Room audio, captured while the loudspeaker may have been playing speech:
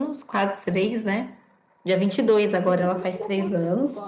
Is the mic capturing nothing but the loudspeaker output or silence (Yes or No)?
No